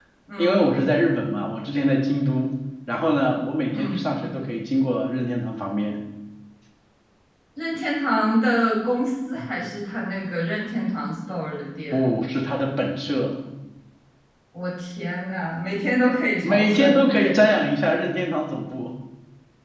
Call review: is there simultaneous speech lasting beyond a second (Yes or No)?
No